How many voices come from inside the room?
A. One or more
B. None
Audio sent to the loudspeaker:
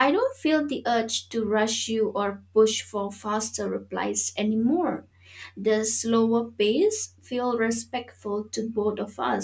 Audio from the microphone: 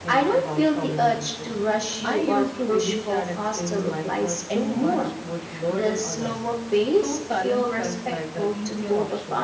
A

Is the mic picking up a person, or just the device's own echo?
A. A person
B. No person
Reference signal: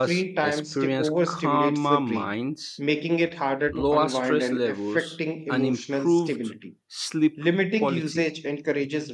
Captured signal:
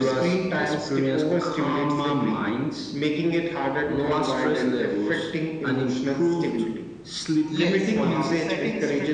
A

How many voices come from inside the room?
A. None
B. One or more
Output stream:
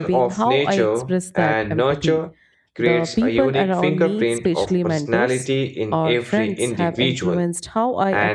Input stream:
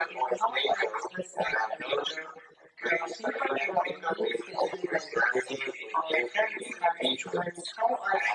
A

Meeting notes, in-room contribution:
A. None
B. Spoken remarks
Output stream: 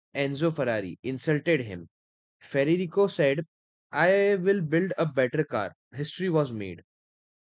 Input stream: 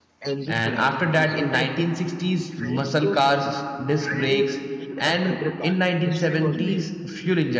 B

